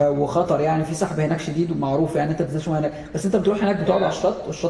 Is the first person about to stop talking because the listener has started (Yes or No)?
No